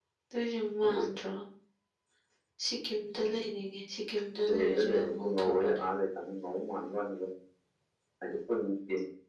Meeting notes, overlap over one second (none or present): present